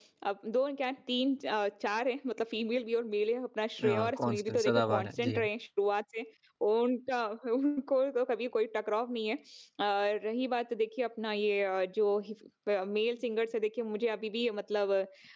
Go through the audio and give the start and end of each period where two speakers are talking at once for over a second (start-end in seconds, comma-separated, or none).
3.9-5.5